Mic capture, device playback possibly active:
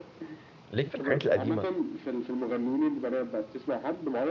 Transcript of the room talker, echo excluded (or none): ليك في الحاجات القديمة